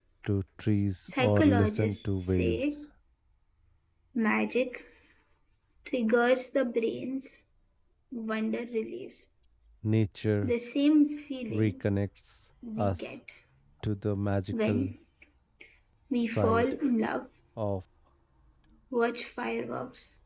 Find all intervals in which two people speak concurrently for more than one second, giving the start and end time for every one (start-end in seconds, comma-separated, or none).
1.1-2.6